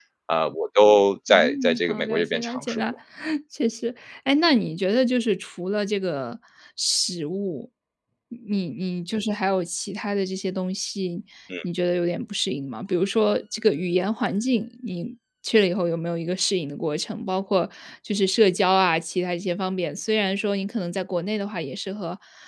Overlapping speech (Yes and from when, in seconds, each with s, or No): Yes, from 1.3 s